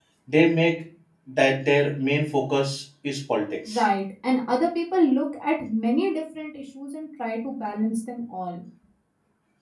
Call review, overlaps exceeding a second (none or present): none